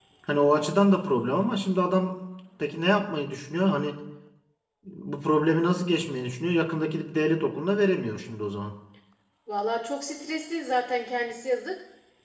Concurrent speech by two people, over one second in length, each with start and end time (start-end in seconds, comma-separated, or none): none